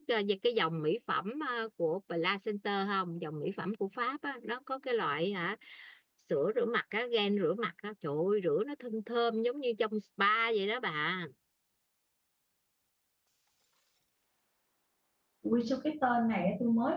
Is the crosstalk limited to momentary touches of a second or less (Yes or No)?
Yes